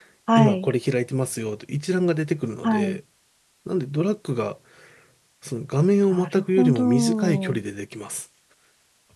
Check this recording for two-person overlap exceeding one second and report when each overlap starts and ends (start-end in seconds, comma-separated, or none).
6.1-7.6